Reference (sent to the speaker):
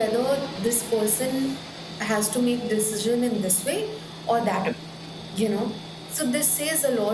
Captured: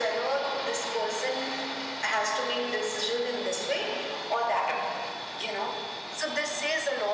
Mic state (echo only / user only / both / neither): echo only